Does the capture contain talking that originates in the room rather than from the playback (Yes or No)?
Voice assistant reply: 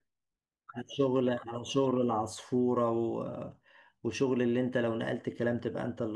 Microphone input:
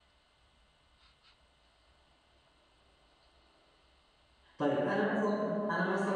Yes